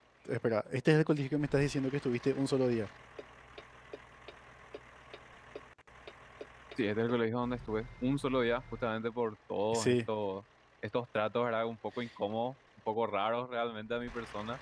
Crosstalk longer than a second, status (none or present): none